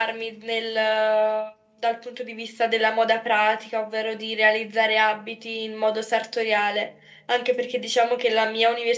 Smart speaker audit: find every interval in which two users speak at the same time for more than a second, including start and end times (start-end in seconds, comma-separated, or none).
none